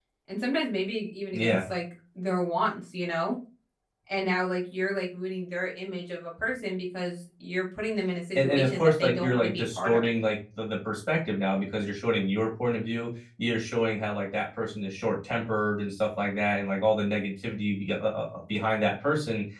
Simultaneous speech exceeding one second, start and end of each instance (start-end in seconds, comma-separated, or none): 8.3-10.1